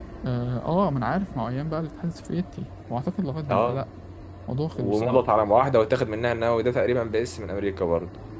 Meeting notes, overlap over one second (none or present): none